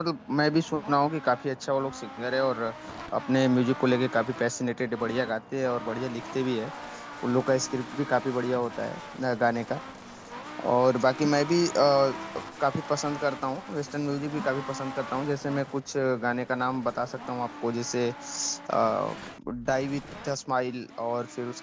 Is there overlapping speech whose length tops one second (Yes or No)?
No